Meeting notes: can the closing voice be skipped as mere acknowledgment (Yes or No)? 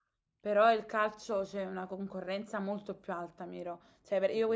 Yes